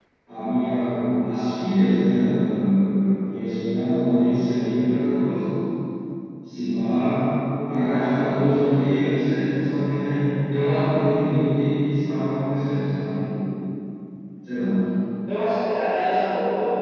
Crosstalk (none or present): none